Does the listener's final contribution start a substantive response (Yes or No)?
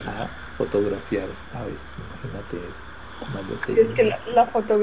Yes